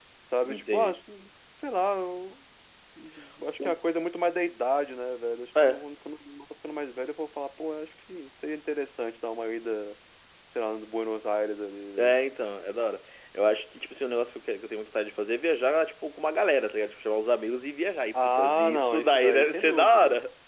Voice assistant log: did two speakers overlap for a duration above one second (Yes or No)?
Yes